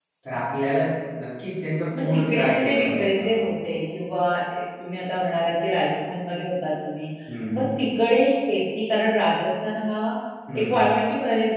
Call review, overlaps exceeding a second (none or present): present